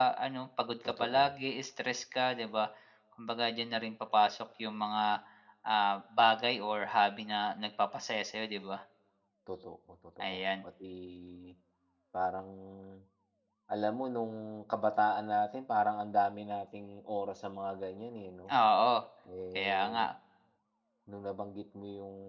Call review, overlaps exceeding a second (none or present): none